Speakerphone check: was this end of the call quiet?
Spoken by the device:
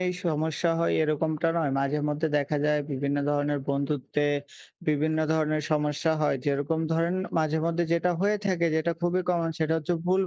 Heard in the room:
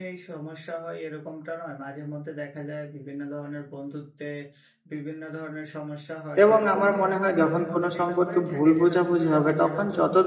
No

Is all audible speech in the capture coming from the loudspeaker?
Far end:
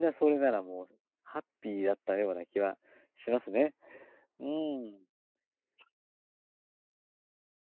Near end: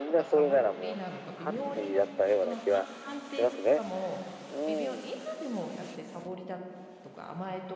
No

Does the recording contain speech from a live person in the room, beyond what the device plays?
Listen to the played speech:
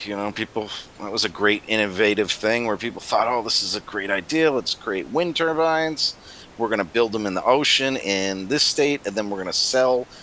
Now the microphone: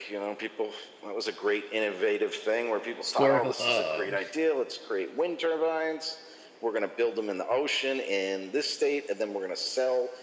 Yes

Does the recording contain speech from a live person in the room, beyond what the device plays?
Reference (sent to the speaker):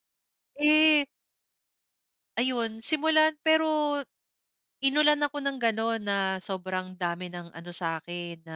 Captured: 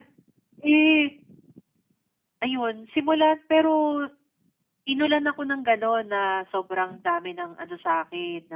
No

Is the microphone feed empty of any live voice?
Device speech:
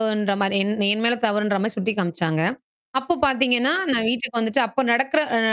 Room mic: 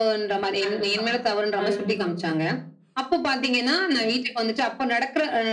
No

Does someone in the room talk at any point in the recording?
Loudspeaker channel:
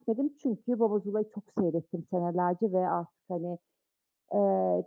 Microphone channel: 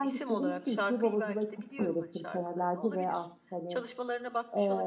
Yes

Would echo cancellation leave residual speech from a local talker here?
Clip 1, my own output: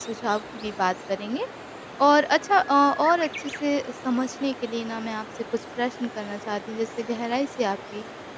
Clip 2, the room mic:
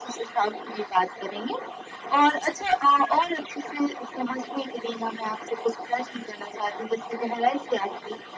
No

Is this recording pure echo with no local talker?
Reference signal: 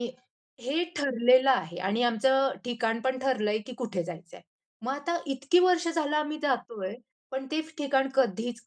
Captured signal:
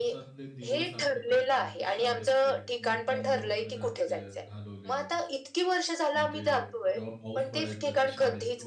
No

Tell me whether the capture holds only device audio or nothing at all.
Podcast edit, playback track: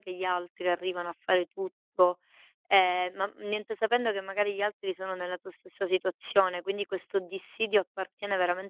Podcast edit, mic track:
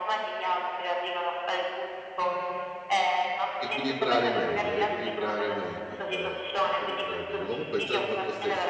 No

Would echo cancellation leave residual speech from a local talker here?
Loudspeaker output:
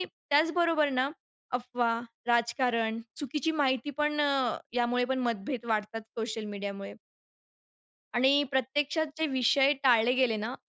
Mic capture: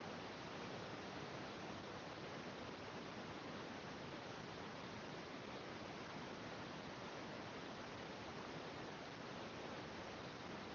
No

